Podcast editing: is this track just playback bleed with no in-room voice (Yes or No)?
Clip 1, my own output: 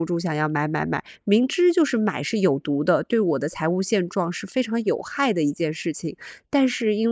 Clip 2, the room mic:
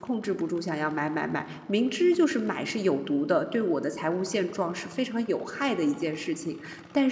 Yes